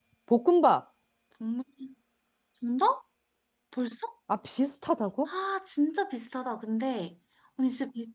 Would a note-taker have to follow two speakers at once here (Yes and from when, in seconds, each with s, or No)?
No